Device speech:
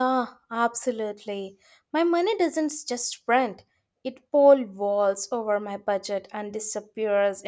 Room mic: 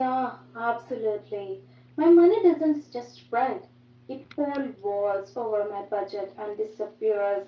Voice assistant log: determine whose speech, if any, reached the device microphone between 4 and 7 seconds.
echo only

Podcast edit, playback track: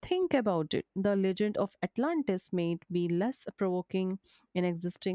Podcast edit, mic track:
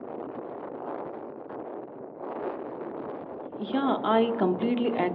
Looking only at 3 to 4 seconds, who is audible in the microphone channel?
user only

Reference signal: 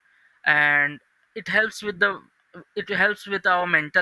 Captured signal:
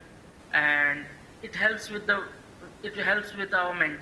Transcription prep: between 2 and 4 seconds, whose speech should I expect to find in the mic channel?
echo only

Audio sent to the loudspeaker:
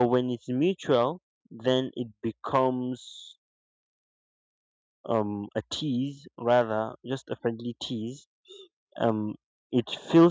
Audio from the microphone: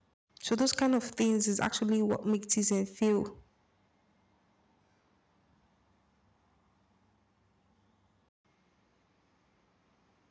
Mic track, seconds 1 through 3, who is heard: user only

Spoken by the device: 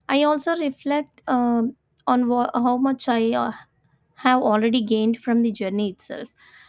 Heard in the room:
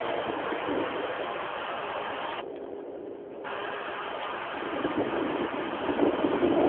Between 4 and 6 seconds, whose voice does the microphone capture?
neither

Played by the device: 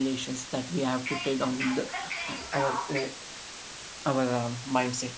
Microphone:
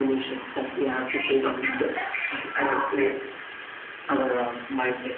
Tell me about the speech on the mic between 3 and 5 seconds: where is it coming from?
echo only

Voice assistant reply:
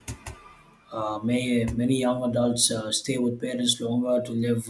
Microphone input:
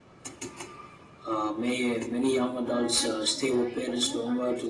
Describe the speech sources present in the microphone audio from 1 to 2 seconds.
echo only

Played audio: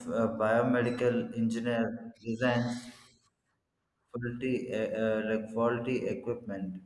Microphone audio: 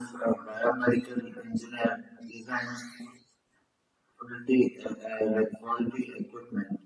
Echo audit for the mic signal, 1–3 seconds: echo only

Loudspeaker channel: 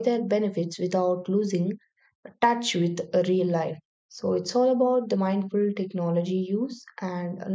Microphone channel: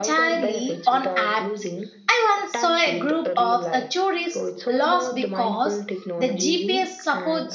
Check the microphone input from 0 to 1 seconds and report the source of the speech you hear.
both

